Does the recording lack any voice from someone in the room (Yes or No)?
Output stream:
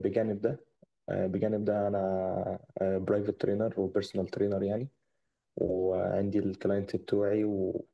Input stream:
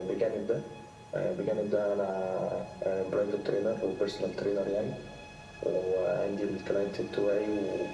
Yes